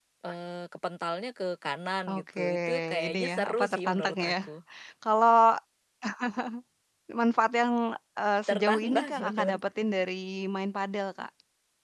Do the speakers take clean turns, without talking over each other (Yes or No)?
No